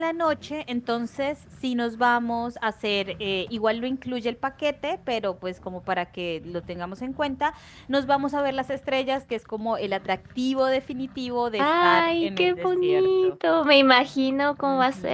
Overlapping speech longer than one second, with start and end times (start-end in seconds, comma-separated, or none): 11.6-13.3